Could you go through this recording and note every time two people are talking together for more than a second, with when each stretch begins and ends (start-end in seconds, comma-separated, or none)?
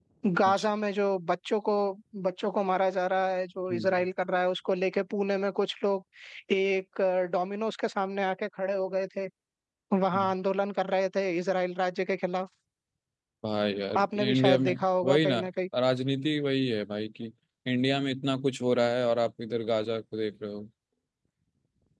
14.0-15.4